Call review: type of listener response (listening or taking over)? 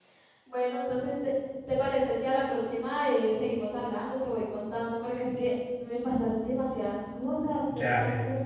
taking over